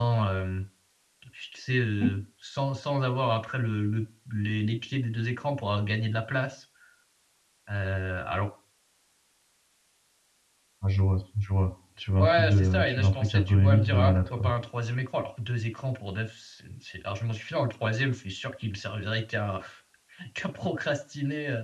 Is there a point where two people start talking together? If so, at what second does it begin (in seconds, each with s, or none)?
12.2 s